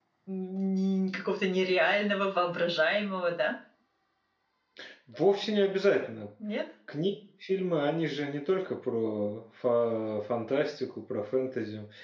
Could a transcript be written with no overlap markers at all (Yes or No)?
Yes